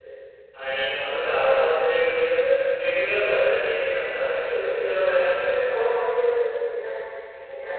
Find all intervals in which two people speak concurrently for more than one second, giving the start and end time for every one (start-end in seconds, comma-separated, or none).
4.3-5.8